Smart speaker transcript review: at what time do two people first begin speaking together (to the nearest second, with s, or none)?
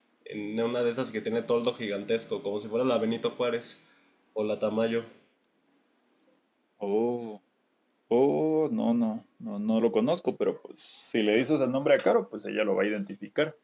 none